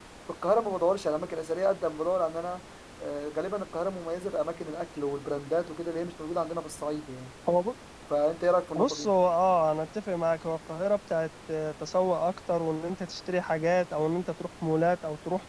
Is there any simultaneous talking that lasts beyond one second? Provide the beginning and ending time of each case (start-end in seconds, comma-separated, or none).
none